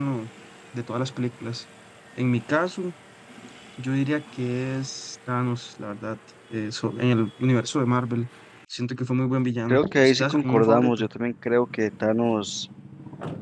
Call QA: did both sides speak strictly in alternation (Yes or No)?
No